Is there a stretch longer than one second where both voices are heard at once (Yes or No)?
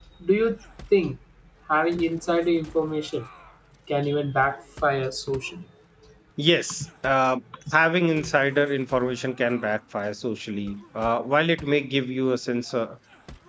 No